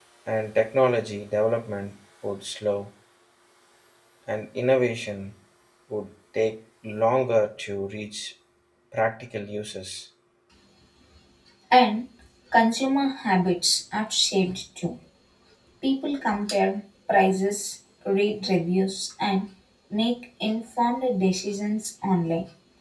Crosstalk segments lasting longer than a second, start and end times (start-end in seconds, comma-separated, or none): none